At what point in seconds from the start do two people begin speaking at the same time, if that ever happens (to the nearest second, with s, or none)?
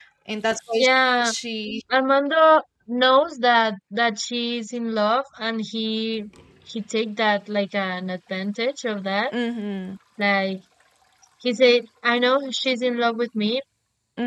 none